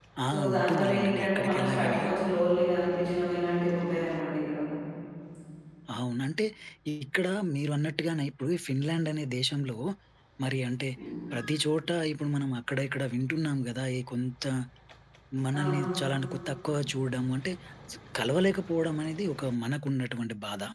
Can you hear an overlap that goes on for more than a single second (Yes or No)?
Yes